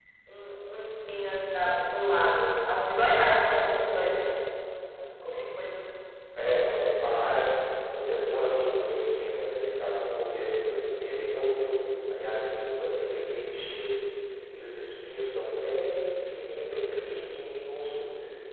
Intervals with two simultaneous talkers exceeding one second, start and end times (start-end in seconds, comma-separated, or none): none